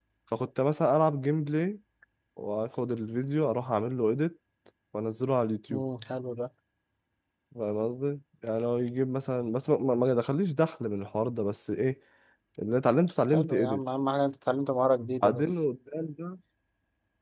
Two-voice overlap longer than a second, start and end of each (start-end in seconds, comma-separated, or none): none